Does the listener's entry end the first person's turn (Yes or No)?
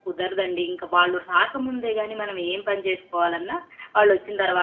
No